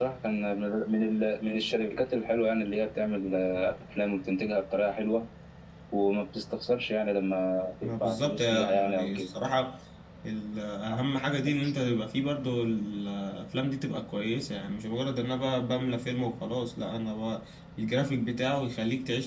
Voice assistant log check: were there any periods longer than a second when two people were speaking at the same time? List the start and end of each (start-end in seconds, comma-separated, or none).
7.8-9.3